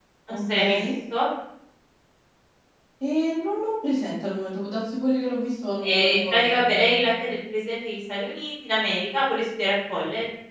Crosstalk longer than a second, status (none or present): present